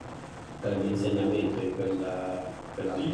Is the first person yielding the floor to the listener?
Yes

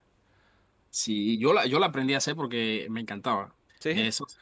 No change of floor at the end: Yes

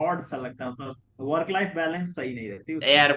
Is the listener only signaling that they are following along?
No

